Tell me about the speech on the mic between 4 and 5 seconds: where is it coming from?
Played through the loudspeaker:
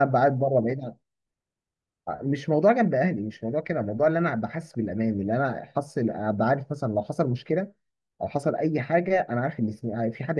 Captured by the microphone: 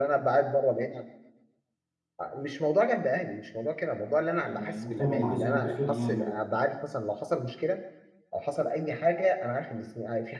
both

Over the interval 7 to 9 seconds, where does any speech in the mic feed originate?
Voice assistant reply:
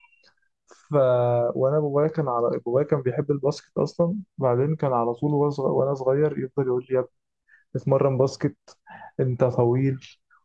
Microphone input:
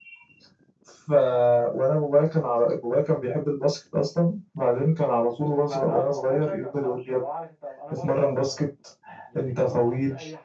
both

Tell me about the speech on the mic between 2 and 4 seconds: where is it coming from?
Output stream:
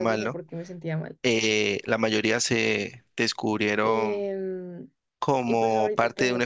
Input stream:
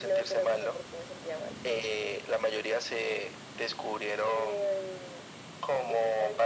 echo only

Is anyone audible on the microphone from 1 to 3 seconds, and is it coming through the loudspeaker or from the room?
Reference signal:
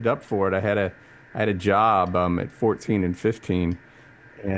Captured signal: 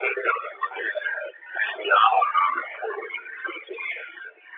echo only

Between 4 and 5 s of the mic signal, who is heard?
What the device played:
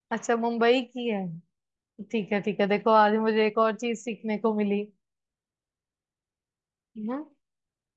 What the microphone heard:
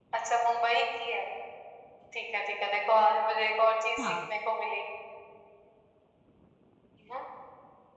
both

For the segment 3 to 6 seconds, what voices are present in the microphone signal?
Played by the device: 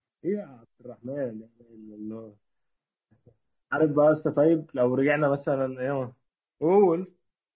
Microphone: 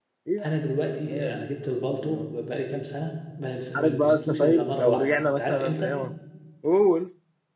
both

